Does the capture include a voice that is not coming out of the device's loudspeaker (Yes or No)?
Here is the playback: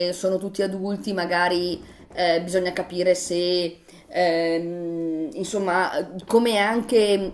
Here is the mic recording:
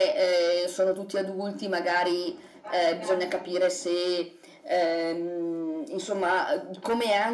Yes